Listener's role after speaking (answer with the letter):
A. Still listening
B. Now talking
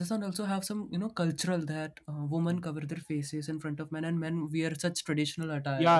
B